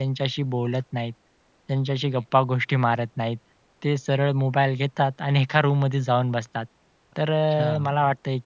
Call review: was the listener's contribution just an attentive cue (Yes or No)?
Yes